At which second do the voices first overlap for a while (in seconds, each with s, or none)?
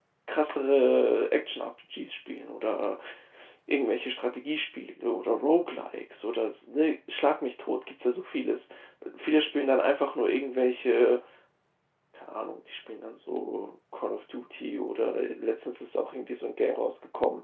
none